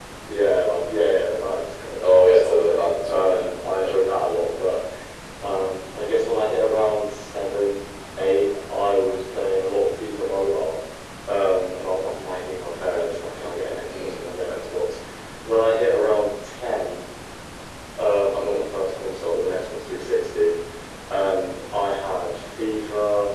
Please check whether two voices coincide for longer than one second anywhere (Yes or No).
Yes